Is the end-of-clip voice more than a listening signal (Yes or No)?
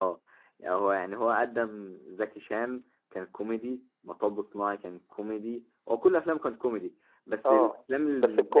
Yes